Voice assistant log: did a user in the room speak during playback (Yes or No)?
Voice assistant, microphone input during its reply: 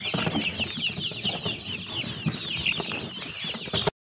No